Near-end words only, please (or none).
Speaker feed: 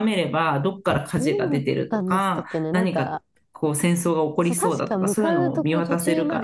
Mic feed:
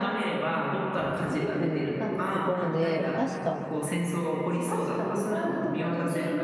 行くところで、確か、